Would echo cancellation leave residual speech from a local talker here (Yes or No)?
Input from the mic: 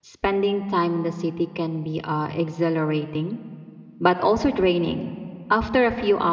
Yes